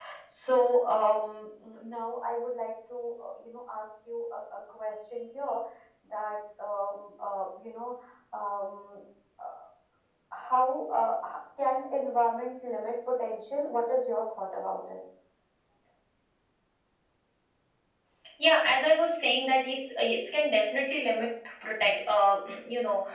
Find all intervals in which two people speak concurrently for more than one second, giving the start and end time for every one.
none

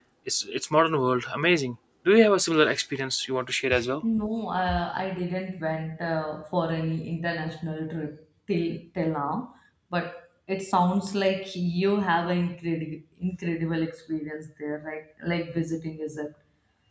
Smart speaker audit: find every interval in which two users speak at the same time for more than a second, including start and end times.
none

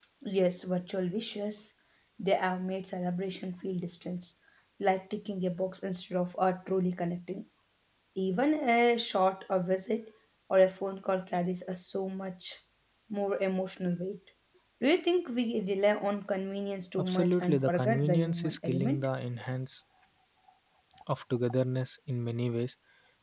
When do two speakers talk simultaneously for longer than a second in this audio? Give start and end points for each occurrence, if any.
17.0-19.1

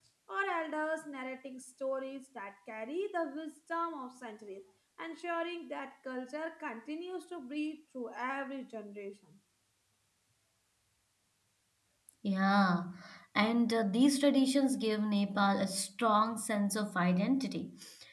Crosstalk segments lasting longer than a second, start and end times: none

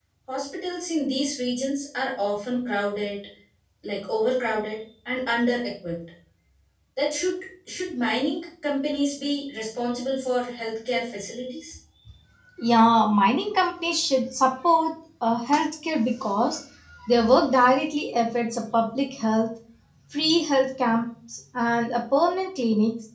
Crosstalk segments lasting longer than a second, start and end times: none

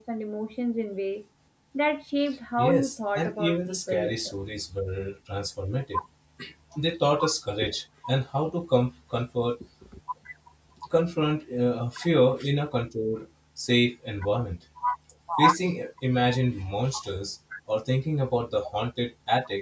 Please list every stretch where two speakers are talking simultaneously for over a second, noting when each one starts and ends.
2.6-4.3

